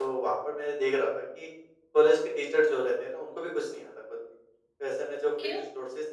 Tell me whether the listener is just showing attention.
Yes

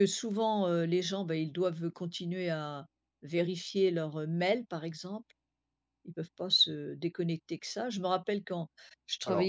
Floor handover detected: No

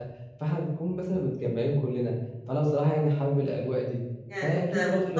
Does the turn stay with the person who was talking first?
No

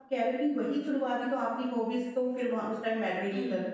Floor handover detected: Yes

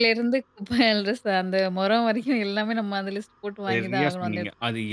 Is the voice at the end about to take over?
Yes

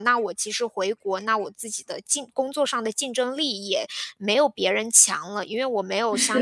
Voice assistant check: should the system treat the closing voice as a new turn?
No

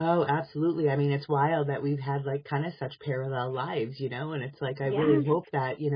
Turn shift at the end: No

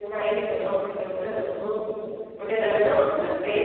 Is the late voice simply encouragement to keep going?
Yes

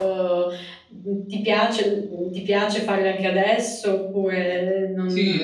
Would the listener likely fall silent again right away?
No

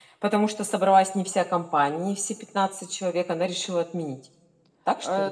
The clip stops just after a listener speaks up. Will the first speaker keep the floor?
No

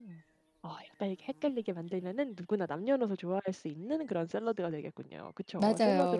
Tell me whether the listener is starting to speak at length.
Yes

